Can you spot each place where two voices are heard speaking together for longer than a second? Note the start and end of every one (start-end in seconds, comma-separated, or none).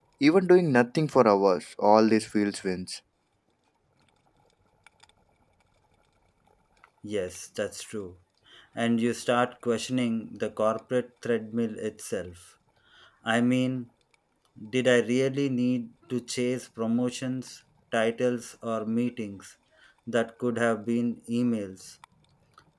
none